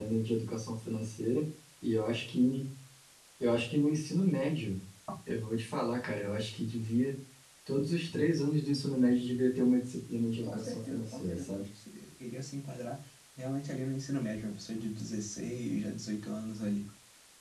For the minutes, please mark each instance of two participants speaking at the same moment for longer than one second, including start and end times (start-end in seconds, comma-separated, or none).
10.4-11.6